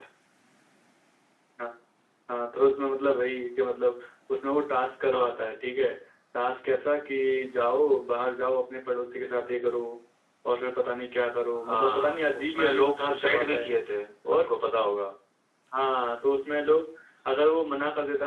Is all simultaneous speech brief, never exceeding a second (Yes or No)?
No